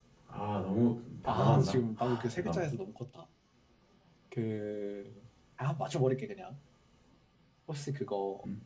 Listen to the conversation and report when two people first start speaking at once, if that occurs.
1.3 s

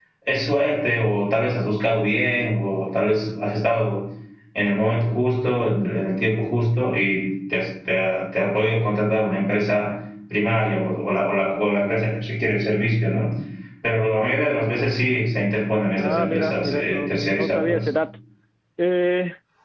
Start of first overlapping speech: 16.0 s

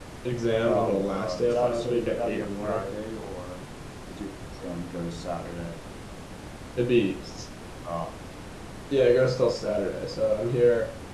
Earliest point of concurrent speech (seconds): 0.6 s

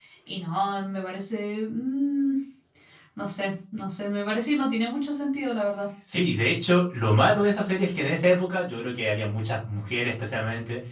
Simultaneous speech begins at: none

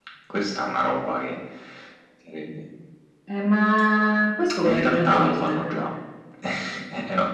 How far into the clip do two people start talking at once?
4.6 s

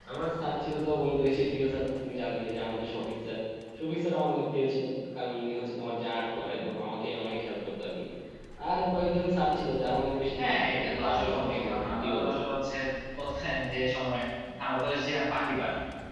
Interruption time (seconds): 10.4 s

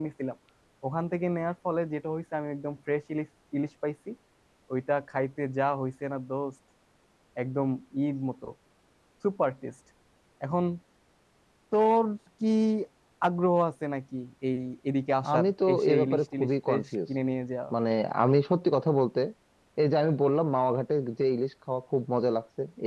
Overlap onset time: 15.2 s

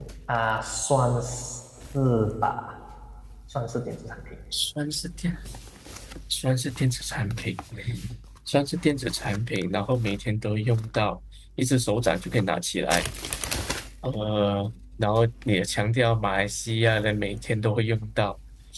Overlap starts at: none

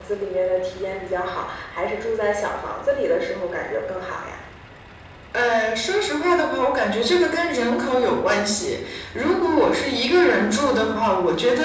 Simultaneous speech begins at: none

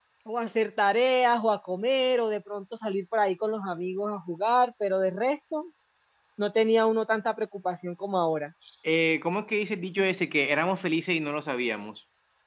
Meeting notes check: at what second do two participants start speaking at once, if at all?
none

